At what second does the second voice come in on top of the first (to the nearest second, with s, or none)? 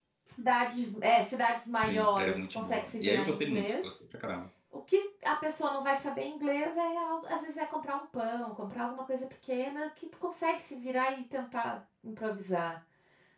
2 s